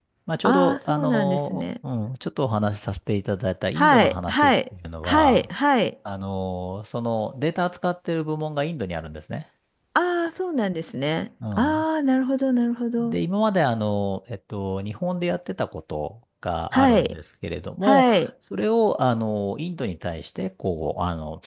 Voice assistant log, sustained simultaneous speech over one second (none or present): present